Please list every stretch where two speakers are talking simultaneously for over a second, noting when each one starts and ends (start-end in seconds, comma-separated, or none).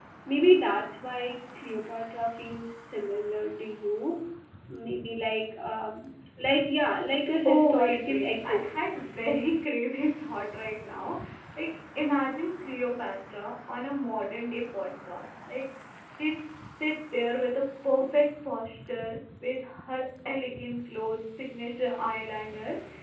7.5-8.7